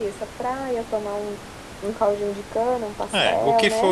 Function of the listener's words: taking over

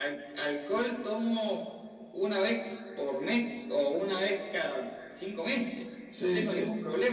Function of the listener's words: listening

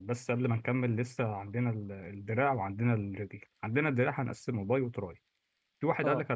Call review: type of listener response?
listening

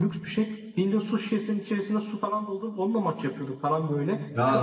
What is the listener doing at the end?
taking over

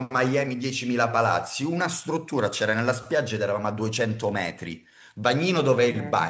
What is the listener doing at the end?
listening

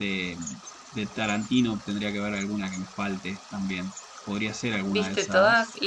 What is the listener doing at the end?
taking over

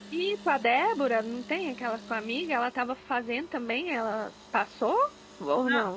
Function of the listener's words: taking over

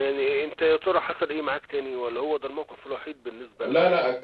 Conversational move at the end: taking over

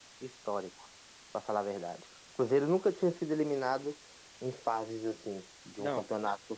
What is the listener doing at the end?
taking over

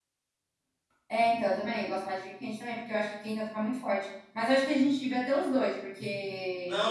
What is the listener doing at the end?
taking over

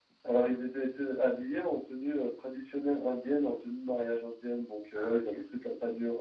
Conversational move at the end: listening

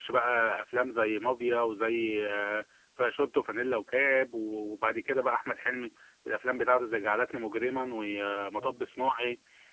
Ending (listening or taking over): listening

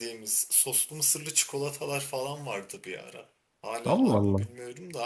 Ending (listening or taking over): listening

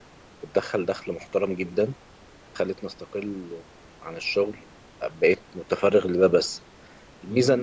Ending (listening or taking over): listening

